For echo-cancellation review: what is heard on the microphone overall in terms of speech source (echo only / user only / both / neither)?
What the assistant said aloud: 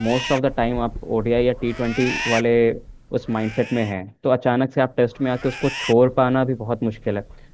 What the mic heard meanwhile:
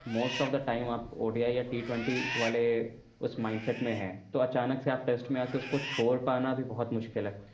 echo only